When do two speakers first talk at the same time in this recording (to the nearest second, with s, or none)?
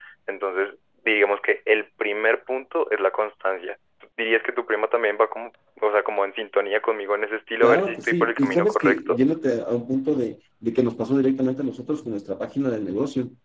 8 s